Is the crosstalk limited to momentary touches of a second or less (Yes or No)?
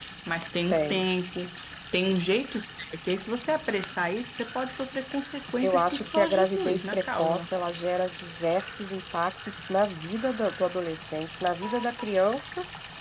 No